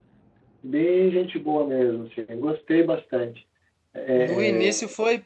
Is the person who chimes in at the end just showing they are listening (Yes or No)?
No